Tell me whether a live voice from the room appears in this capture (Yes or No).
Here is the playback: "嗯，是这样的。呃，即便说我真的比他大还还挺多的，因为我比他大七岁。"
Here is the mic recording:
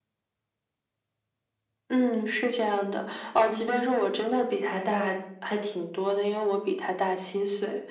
No